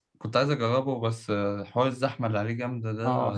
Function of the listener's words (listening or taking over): taking over